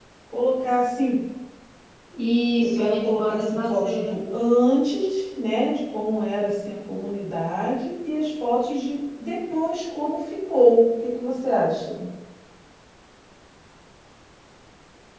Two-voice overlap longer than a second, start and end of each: 2.5-4.1

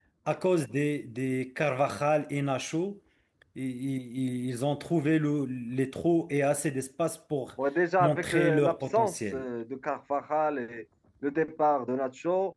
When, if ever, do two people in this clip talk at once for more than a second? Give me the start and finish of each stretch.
8.0-9.4

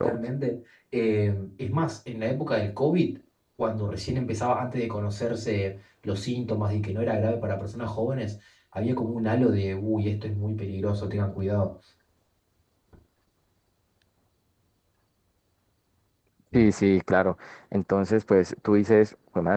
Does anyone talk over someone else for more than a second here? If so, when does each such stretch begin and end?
none

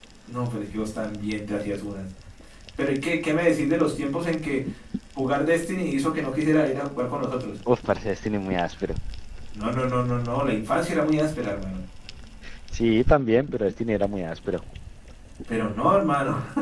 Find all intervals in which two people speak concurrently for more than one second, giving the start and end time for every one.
none

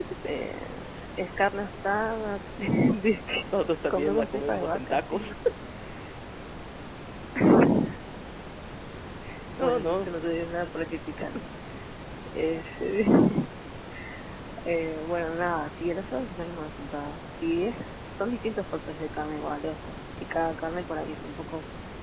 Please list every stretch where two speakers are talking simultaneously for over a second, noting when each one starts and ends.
3.9-5.3

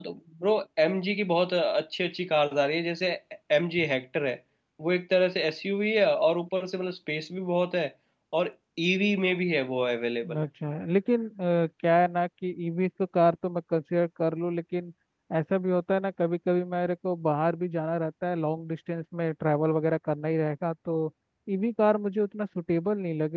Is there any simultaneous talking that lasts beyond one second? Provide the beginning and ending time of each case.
none

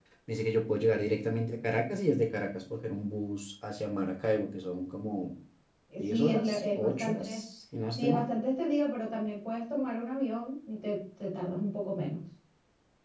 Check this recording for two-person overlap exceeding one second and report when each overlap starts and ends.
6.0-7.4

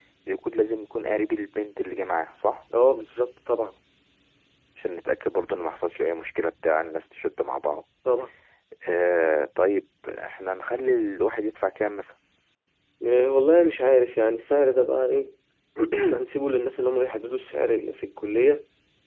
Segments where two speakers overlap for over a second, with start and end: none

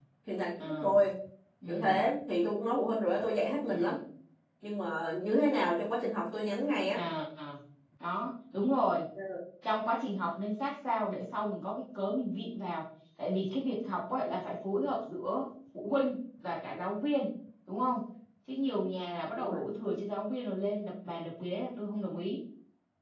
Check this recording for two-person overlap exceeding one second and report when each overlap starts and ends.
none

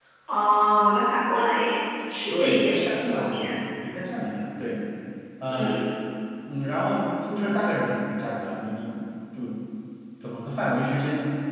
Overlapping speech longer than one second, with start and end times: 2.3-3.5

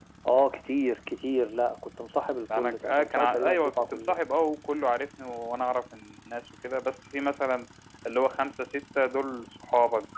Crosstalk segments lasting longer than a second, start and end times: 2.5-4.2

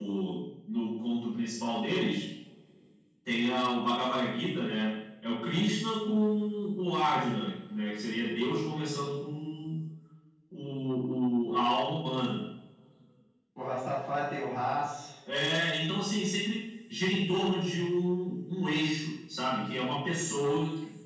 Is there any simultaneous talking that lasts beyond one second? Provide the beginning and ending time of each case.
none

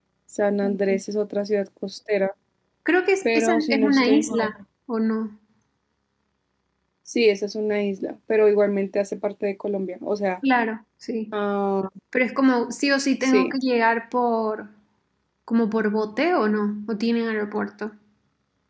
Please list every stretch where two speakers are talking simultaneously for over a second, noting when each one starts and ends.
3.2-4.5

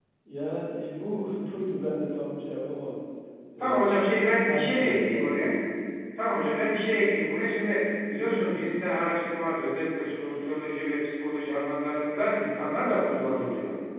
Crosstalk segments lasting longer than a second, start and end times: 3.6-5.5

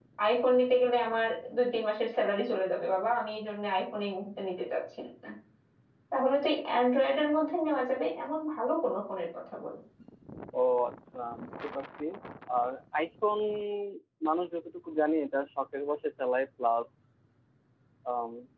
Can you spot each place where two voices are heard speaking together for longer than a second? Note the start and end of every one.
none

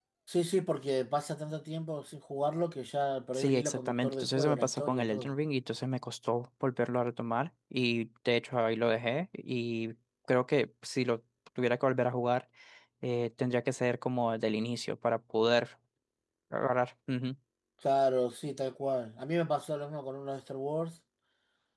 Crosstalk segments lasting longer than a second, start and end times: 3.3-5.3

